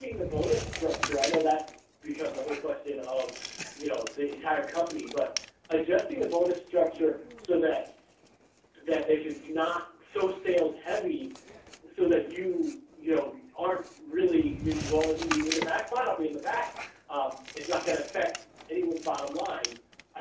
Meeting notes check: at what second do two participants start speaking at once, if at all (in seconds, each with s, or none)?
none